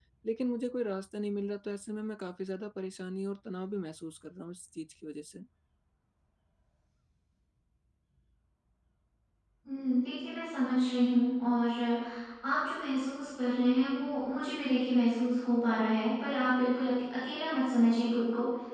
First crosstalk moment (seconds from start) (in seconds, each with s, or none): none